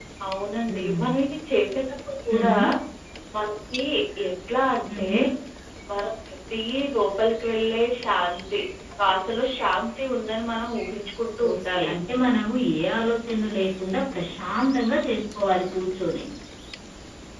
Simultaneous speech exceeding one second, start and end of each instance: none

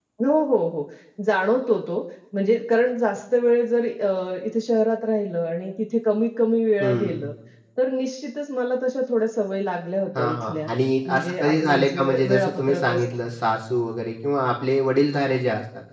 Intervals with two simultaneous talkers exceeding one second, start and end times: 11.1-13.0

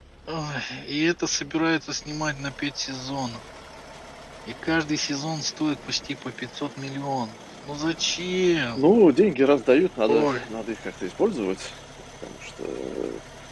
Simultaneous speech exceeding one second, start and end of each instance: none

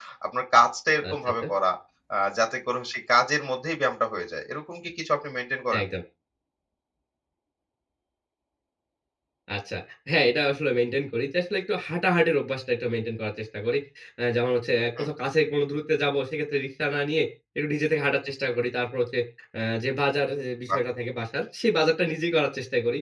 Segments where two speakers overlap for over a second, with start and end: none

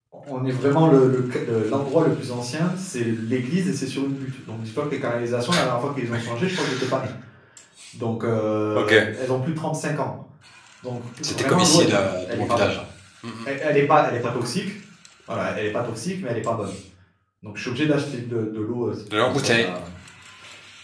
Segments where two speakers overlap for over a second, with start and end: 11.2-12.8

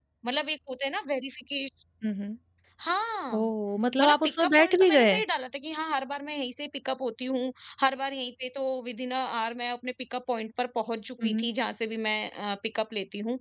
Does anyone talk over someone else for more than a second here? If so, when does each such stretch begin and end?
4.0-5.2

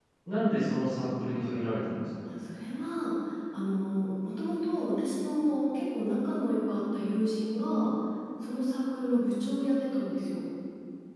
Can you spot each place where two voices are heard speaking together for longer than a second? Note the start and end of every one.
none

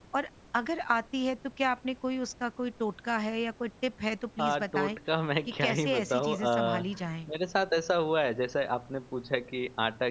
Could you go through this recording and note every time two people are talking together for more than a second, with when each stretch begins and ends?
5.6-6.9

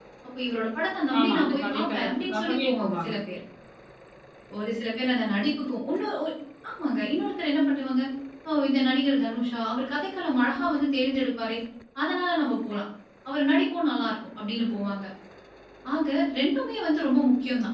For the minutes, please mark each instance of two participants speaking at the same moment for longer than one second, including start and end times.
1.2-3.1

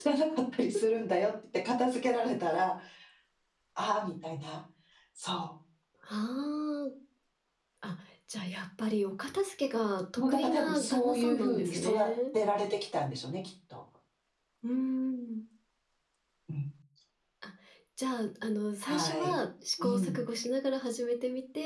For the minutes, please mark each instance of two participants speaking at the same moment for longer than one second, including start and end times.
10.3-12.1

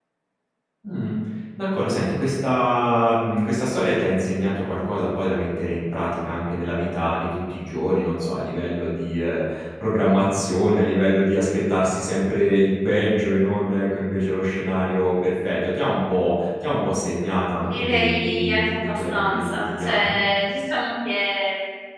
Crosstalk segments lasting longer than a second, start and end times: 17.6-20.2

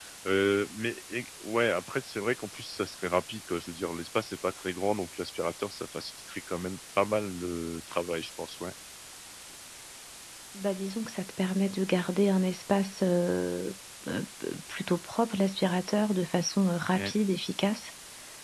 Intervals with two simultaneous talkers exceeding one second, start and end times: none

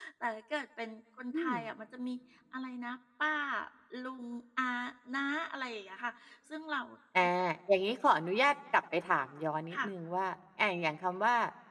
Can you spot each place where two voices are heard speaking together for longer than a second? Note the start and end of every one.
none

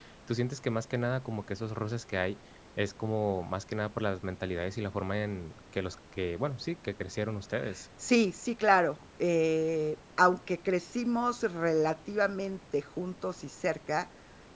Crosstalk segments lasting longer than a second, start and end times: none

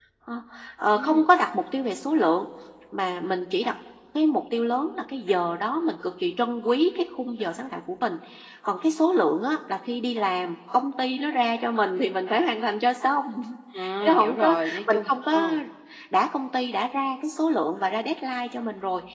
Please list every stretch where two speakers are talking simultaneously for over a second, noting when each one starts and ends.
14.0-15.4

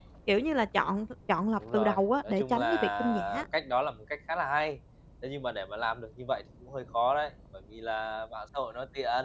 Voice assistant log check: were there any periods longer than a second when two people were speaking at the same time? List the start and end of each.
1.7-3.4

